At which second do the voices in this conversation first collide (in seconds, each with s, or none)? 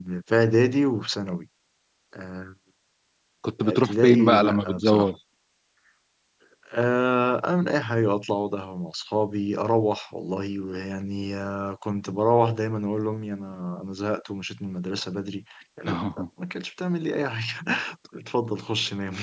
3.6 s